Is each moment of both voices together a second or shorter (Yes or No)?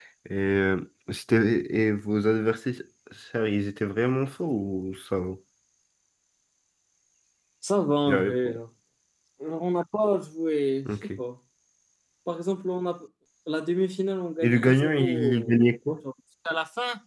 No